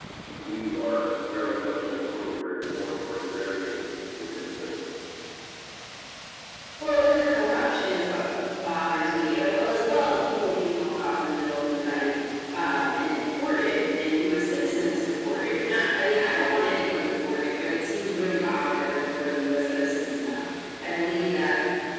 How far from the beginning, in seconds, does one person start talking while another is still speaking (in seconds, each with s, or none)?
none